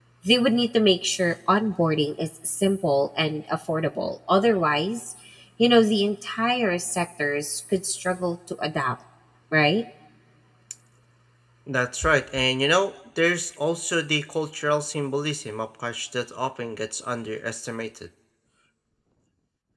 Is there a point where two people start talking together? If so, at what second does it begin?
none

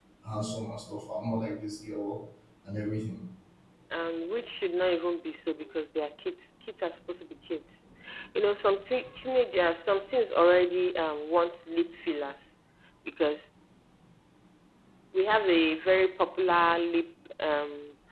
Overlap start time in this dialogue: none

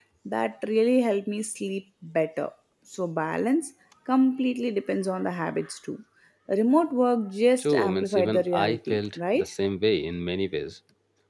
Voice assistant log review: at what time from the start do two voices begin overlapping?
7.6 s

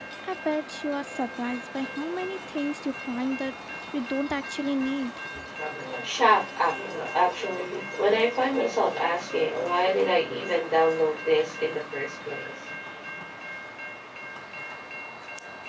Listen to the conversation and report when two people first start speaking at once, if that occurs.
none

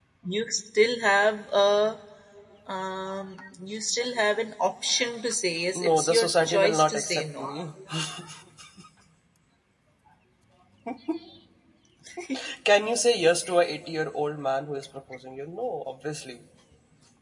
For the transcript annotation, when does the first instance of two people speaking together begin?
5.8 s

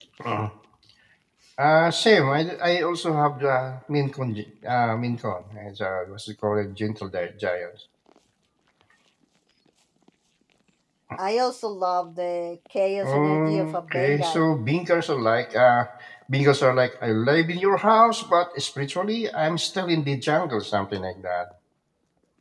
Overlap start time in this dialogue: 13.0 s

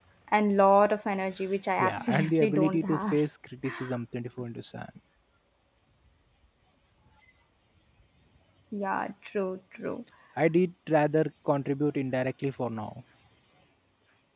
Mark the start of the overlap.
1.8 s

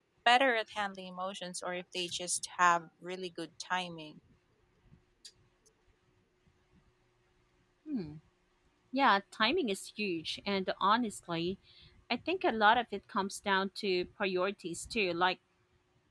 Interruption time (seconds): none

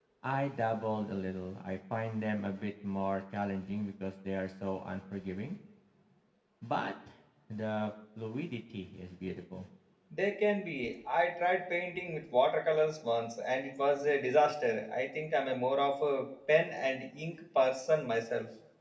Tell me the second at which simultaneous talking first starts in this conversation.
none

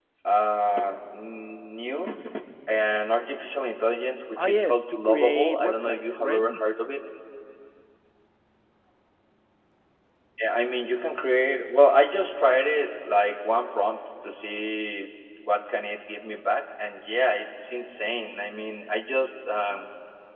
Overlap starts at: 4.4 s

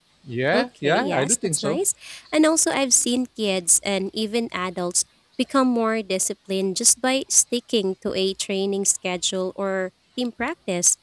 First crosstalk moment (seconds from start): 0.5 s

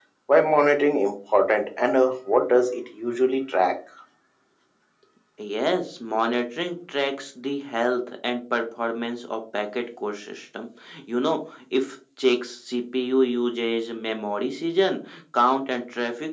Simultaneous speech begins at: none

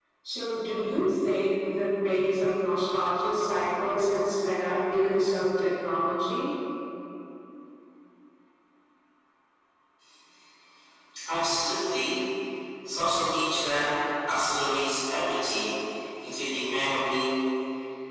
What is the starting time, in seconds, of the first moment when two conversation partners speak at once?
none

